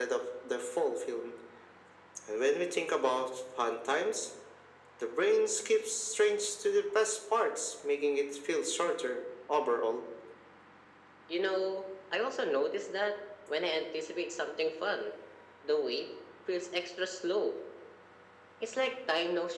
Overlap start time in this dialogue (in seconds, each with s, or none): none